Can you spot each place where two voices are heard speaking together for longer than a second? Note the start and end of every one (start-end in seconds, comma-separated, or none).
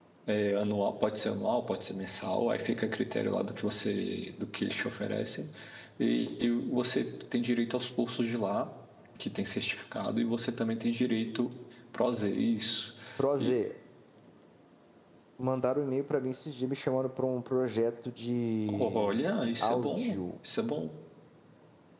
18.7-20.2